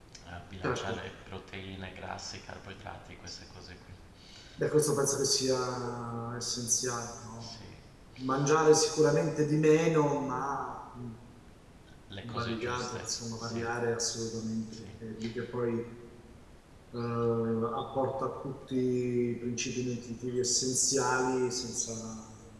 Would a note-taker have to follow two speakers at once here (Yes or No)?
Yes